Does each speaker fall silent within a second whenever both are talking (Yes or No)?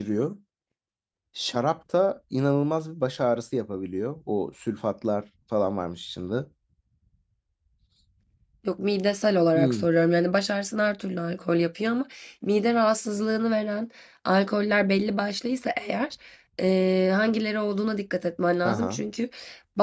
Yes